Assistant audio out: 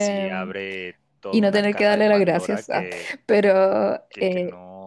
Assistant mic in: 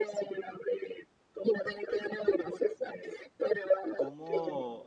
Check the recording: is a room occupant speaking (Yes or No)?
Yes